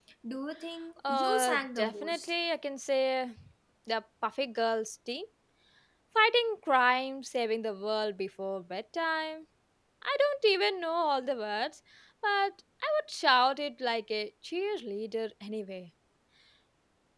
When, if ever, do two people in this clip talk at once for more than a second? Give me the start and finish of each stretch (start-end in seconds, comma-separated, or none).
1.1-2.3